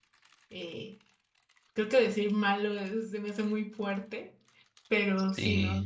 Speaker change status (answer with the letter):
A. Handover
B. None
B